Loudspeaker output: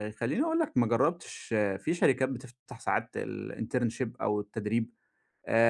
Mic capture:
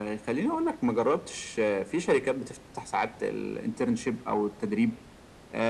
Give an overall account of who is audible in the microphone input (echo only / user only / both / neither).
echo only